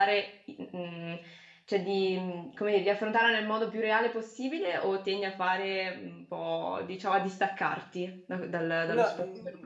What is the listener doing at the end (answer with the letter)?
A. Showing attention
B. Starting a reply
B